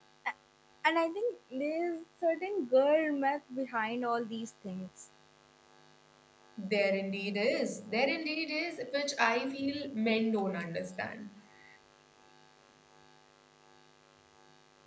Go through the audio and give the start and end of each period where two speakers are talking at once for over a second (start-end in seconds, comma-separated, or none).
none